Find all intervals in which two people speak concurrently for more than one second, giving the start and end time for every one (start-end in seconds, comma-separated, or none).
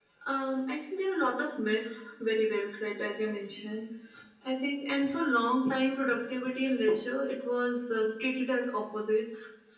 none